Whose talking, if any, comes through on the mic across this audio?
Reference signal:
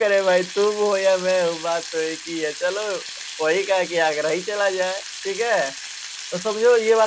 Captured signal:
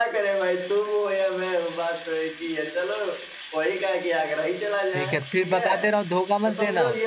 both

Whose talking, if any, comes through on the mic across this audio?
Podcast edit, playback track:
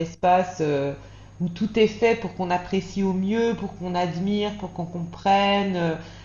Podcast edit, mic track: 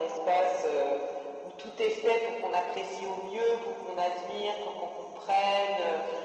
echo only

